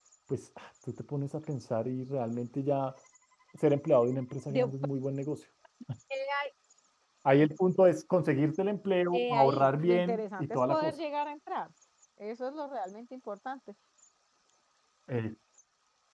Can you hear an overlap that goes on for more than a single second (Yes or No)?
Yes